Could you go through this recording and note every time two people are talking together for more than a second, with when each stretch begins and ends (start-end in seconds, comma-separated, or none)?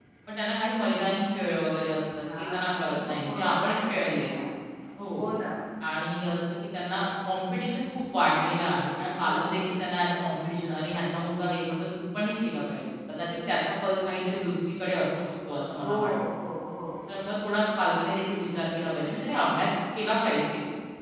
2.4-4.3